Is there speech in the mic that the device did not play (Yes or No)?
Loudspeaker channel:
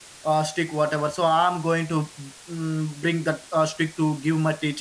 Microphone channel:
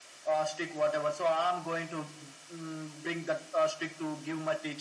No